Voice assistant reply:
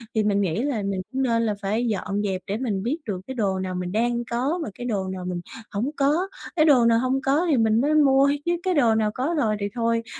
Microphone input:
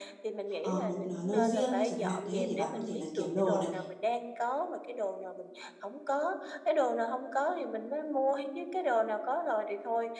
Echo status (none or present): present